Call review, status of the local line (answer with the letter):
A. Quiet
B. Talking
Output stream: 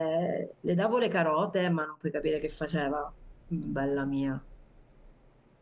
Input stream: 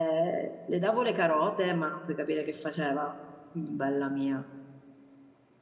A